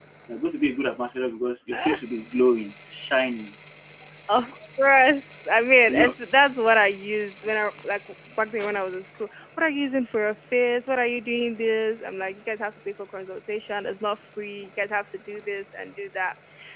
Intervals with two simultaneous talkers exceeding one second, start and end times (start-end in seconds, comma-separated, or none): none